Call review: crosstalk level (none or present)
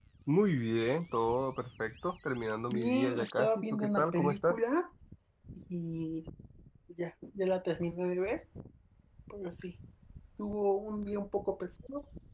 present